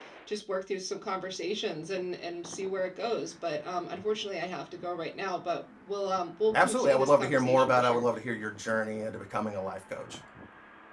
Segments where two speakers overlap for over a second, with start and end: 6.5-8.1

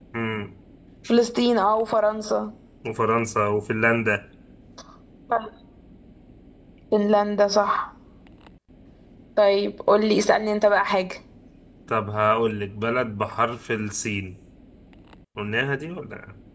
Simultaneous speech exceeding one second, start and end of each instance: none

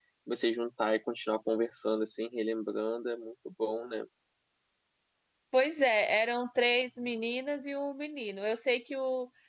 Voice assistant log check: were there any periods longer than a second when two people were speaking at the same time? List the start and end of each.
none

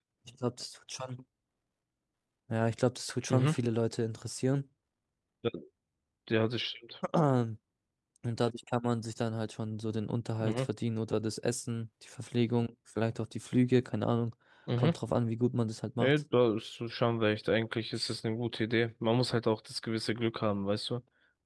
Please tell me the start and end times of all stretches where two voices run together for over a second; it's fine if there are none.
none

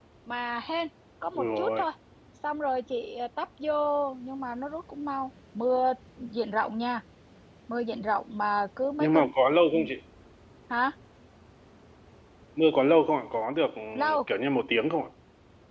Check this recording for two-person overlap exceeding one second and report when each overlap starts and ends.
none

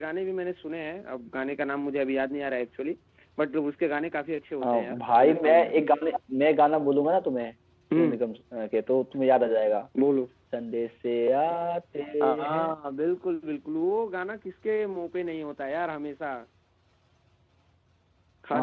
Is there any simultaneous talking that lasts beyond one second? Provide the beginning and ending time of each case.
4.6-5.8

